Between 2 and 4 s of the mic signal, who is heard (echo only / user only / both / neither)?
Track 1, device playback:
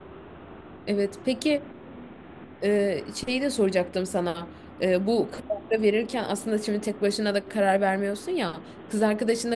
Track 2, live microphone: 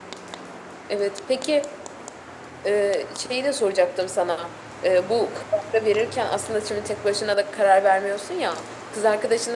echo only